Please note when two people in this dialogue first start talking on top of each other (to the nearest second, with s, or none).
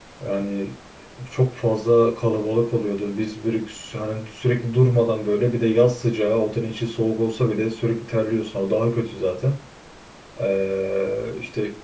none